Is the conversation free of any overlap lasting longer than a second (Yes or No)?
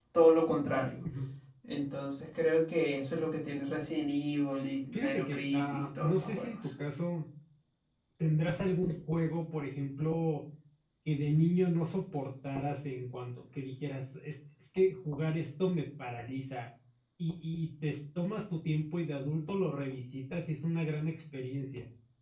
No